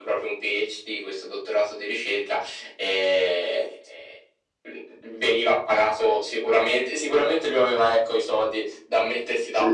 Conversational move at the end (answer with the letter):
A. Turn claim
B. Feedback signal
B